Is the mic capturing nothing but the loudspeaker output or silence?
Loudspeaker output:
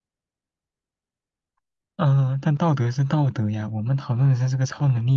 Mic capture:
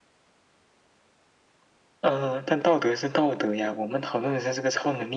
Yes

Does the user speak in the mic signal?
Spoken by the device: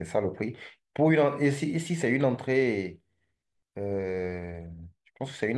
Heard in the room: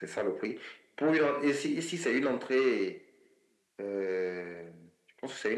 No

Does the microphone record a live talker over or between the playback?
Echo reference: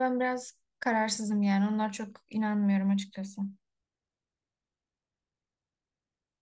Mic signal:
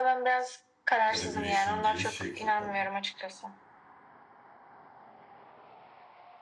Yes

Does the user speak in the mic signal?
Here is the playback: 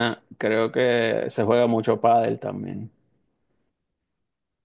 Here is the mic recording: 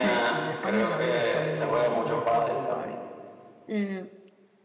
Yes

